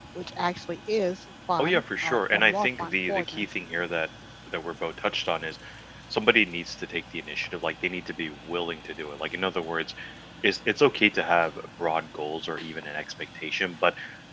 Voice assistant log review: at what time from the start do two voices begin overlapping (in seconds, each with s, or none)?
1.6 s